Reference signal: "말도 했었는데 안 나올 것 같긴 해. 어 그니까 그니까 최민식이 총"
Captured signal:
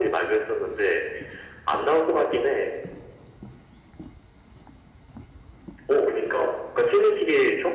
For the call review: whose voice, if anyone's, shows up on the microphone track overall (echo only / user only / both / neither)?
echo only